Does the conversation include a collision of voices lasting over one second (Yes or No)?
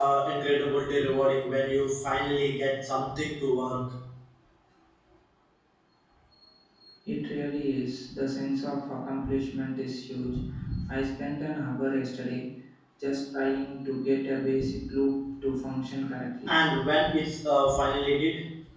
No